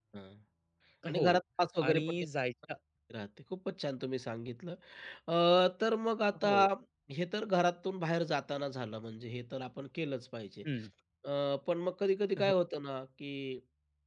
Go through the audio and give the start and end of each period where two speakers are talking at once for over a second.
none

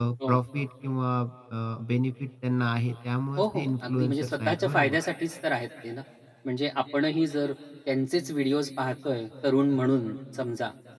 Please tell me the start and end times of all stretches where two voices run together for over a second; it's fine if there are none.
3.4-5.0

